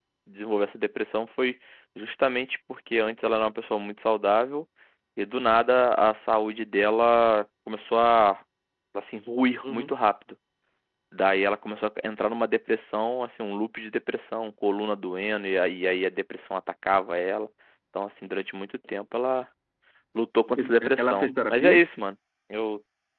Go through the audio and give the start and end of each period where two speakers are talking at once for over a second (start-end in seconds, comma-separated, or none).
20.6-21.8